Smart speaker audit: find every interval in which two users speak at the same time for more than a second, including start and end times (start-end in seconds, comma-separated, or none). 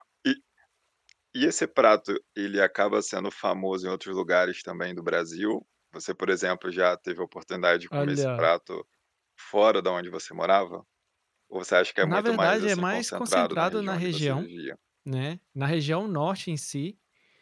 12.0-14.5